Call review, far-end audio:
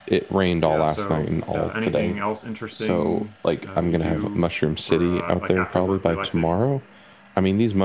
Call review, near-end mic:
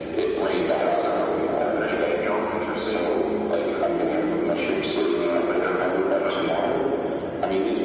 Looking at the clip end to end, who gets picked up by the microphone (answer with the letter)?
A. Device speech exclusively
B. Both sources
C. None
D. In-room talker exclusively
A